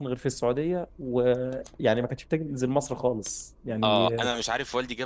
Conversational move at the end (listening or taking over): taking over